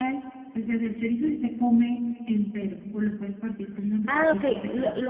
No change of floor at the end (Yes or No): No